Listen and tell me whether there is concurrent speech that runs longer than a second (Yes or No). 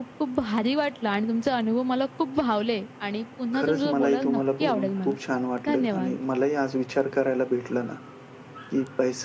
Yes